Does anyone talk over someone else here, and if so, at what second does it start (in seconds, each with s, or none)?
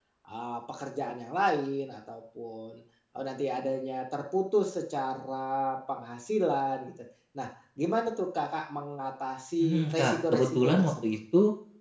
9.6 s